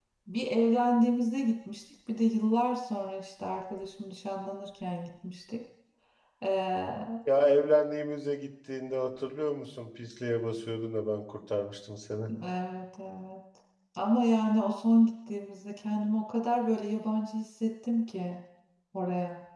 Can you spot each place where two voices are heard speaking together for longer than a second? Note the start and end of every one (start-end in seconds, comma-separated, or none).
none